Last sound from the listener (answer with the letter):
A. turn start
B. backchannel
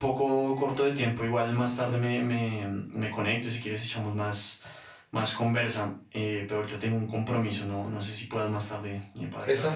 A